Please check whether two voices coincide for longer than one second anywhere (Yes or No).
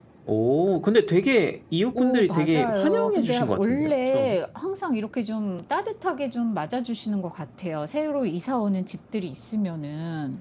Yes